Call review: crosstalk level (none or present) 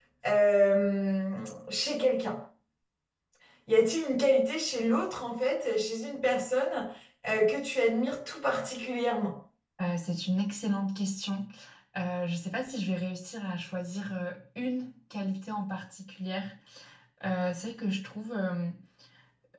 none